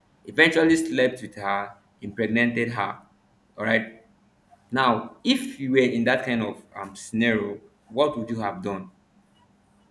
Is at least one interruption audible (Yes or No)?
No